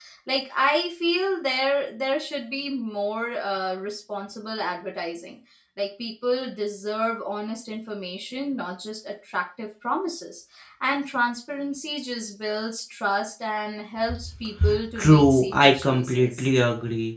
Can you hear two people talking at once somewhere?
Yes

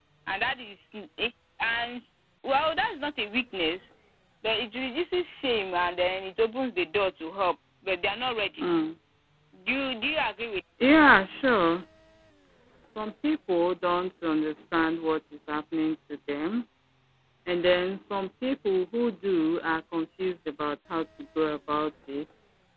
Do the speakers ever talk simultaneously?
No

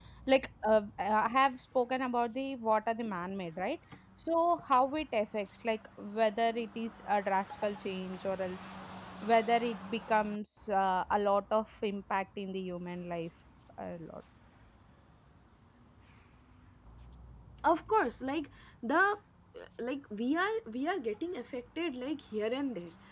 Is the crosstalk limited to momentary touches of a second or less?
Yes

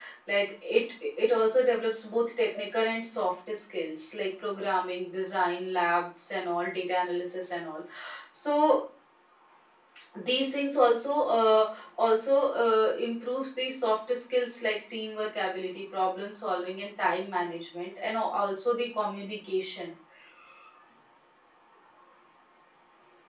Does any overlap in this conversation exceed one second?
No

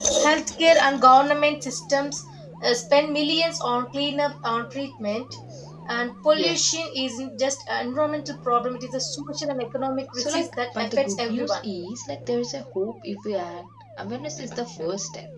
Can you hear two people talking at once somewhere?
Yes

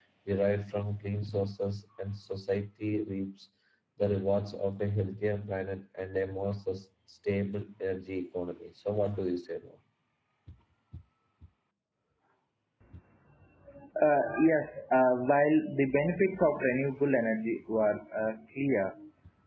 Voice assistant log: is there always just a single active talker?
Yes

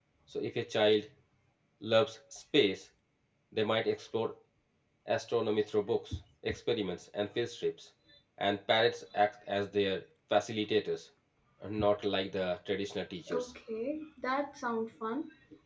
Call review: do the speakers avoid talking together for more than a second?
Yes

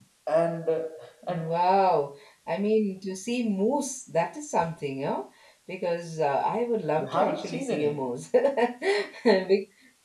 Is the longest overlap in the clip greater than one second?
Yes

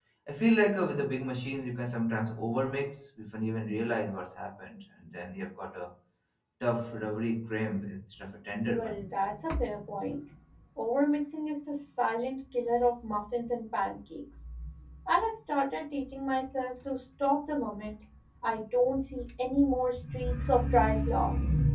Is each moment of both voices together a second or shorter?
Yes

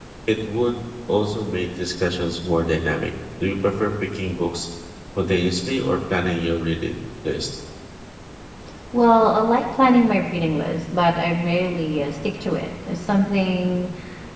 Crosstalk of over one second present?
No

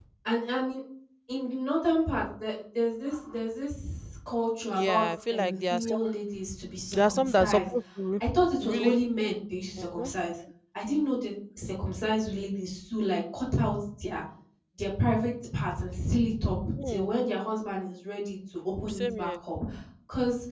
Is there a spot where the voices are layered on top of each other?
Yes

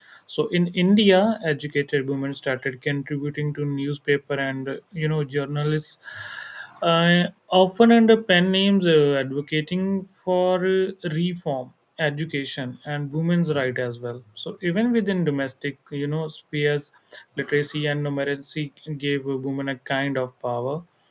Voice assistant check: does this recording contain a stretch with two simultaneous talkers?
No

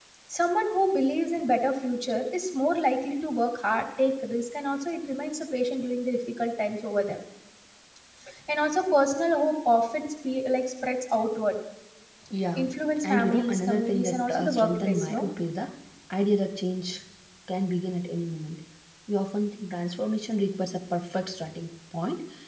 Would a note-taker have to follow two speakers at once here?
Yes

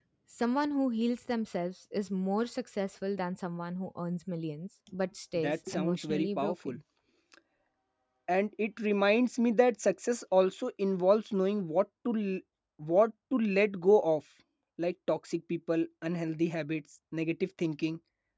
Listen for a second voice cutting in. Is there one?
Yes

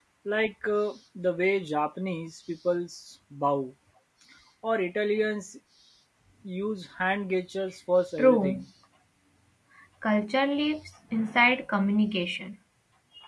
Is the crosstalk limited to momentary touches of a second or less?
Yes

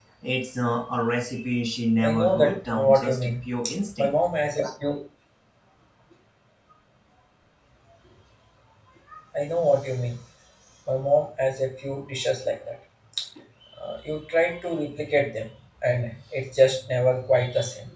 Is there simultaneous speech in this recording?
Yes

